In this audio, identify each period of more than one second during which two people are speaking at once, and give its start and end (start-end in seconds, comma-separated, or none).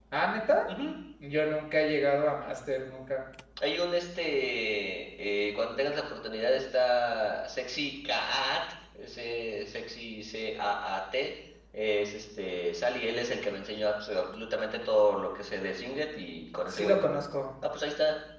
none